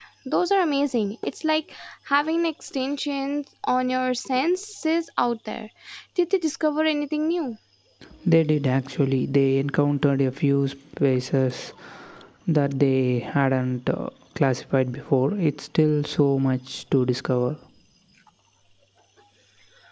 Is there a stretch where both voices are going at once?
No

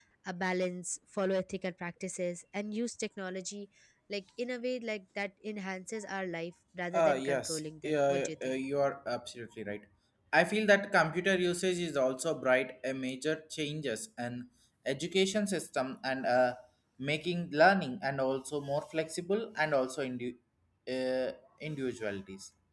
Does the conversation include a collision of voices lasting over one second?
Yes, from 6.9 s

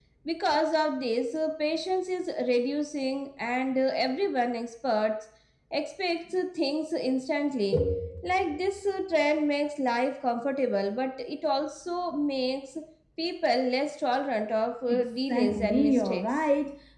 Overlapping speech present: Yes, from 14.9 s

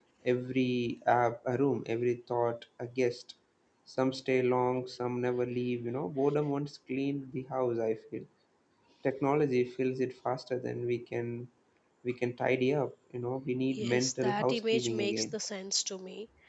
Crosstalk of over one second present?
Yes, from 13.7 s

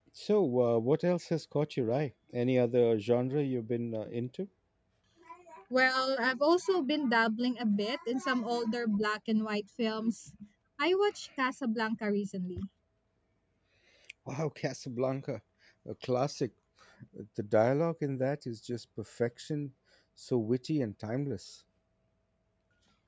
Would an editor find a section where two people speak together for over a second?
No

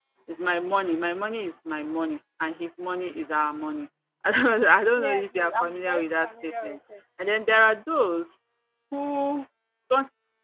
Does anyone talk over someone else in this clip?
Yes, from 5.0 s

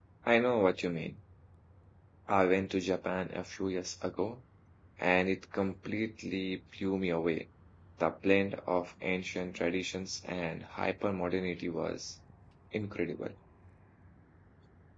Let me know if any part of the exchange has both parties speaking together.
No

